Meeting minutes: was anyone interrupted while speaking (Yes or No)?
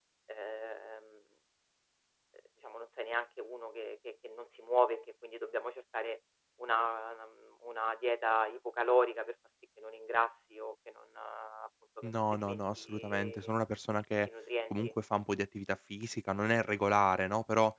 Yes